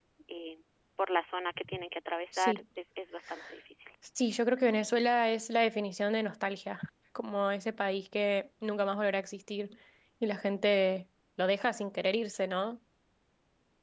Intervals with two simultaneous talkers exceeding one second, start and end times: none

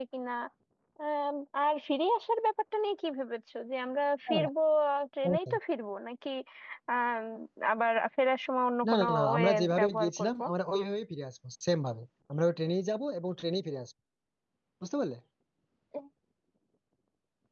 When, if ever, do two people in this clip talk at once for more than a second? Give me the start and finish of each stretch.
8.8-10.3

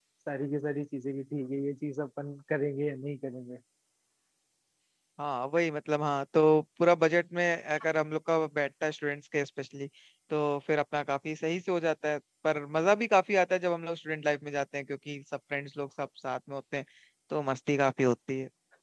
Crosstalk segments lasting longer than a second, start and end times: none

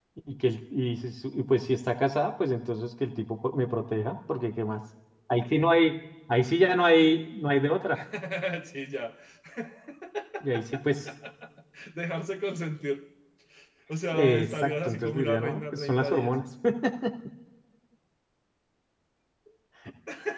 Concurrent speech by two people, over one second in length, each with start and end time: 14.1-16.3

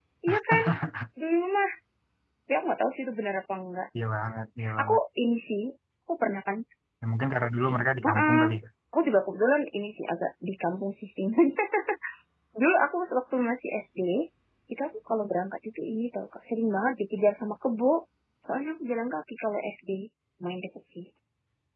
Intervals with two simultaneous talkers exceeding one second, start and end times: none

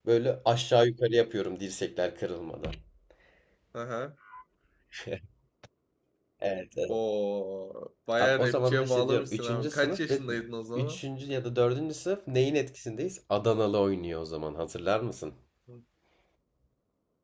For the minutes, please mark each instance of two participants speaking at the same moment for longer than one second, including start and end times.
8.2-10.2

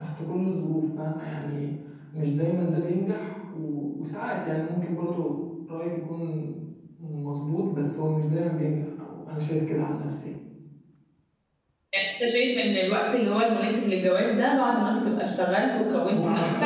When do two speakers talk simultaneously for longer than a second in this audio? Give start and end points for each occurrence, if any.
none

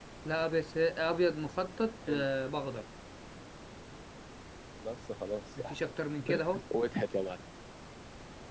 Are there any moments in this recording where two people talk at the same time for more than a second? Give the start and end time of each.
none

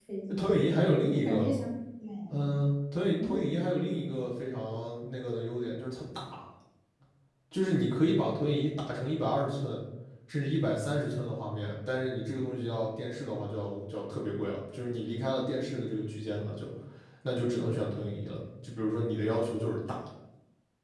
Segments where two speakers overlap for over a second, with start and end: none

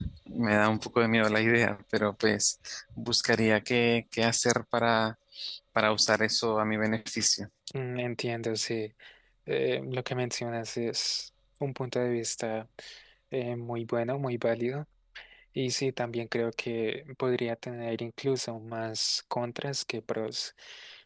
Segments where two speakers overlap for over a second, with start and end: none

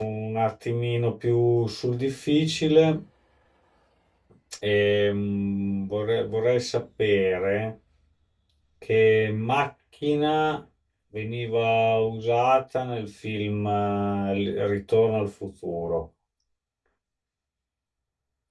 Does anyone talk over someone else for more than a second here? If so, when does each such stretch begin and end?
none

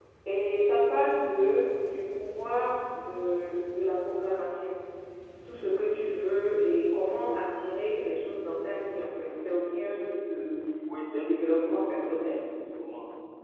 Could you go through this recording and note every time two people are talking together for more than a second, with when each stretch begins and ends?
11.1-12.4

